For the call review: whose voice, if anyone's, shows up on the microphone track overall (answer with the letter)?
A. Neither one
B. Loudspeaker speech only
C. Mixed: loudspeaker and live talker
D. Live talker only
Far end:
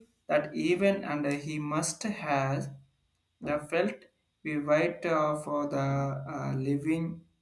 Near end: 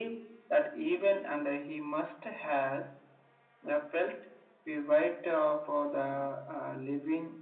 B